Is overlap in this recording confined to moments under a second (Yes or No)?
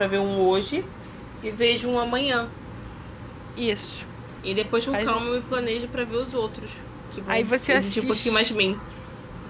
No